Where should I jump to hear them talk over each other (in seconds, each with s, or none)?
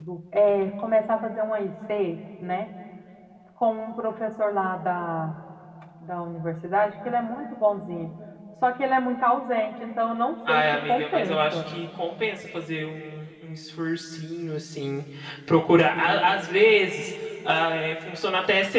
10.5 s